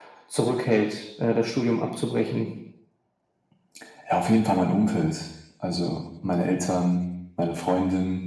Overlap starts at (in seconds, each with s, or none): none